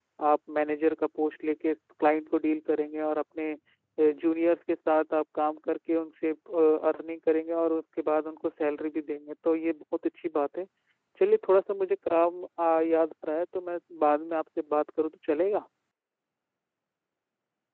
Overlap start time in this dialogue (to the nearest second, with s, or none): none